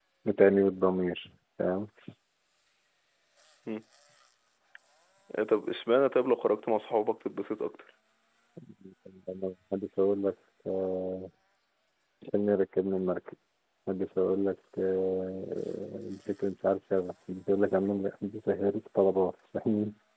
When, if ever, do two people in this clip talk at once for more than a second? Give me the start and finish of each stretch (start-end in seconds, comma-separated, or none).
none